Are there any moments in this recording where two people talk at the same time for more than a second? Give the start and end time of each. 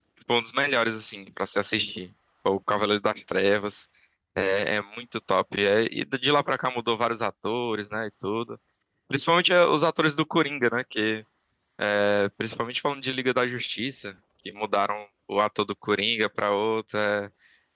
none

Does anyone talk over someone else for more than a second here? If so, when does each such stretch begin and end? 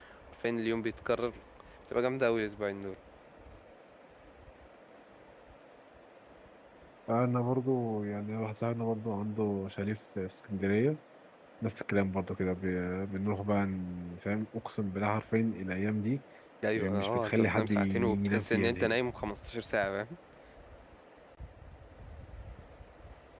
16.8-19.0

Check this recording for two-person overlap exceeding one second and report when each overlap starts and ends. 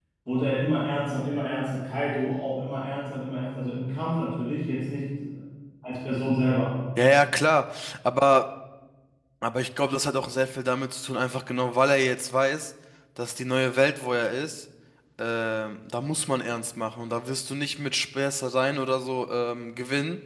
none

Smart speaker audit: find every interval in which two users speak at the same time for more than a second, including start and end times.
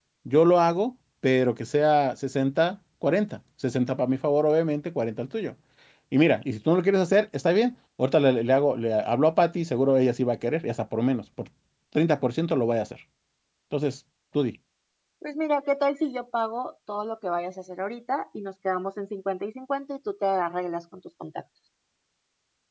none

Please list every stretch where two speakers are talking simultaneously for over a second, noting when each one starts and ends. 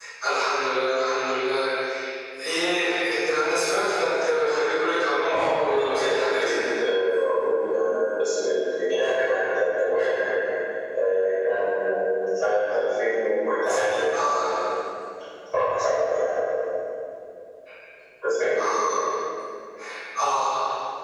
5.3-6.5

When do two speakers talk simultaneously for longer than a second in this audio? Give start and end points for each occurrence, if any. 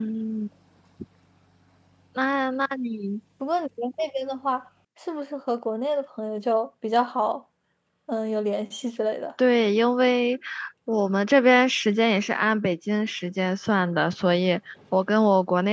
none

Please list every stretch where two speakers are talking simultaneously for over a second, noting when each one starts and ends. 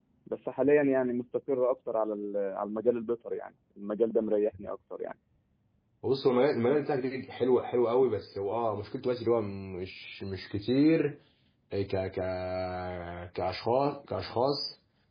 none

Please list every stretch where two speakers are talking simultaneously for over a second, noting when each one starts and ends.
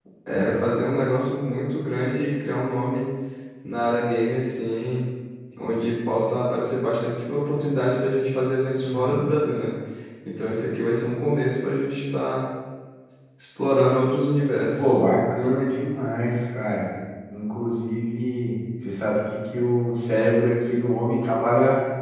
none

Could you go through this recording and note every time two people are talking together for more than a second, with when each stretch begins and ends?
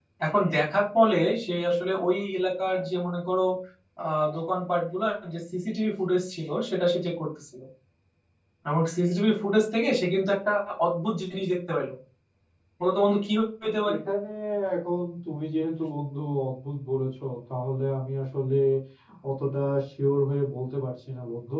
none

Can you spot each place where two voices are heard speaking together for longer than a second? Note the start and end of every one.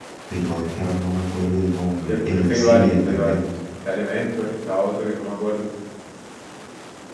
2.1-3.4

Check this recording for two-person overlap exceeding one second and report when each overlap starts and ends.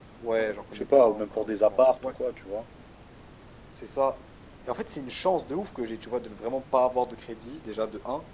0.7-2.1

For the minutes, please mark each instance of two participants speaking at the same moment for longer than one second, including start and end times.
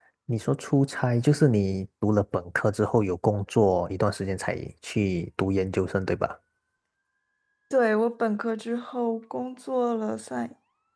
none

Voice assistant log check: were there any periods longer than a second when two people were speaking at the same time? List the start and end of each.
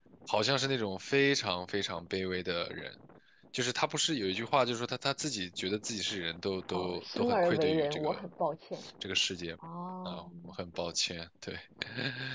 6.7-8.2

